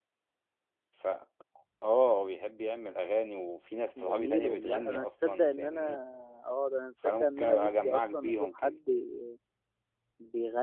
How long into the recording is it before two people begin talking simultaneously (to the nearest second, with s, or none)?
4 s